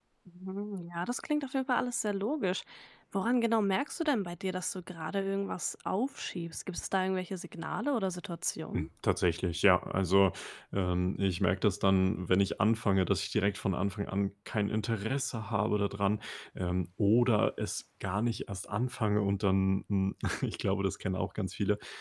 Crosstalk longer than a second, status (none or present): none